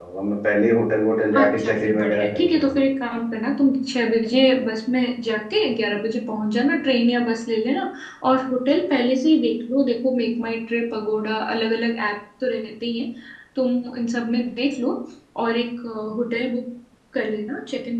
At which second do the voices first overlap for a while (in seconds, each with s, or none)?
1.3 s